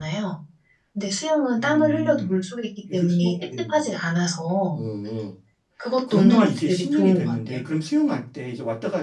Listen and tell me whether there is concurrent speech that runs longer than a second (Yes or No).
Yes